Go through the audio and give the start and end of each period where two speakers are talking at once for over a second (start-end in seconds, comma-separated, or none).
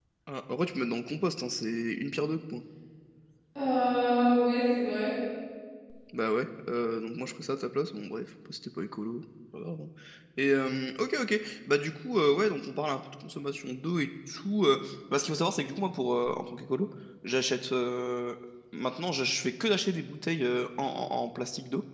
none